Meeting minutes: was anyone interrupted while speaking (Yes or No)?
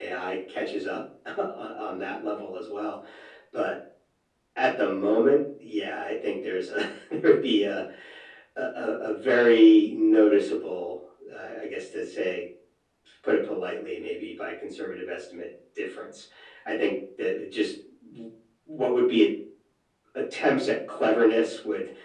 No